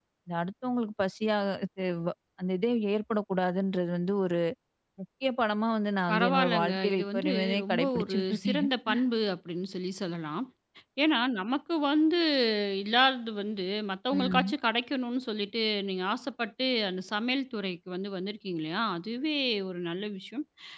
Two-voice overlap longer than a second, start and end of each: 6.1-8.7

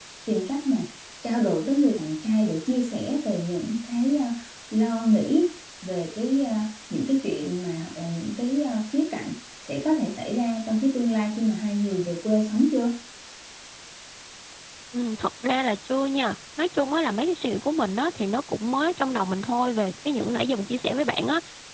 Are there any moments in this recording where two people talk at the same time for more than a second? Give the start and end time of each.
none

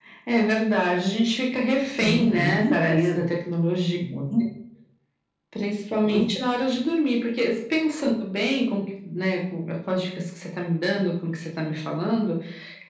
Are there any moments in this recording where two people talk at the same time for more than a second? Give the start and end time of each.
2.0-3.2

